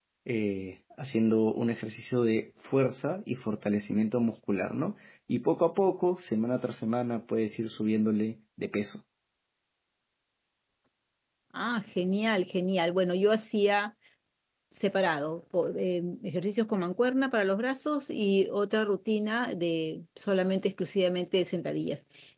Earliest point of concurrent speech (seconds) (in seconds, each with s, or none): none